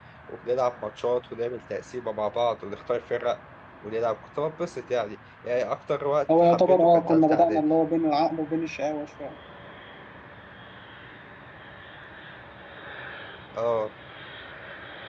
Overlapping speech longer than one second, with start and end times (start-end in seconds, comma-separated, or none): 6.4-7.6